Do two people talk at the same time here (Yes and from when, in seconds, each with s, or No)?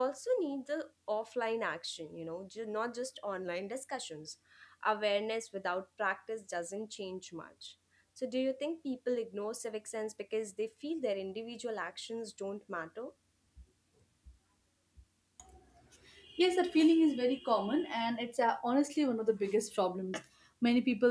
No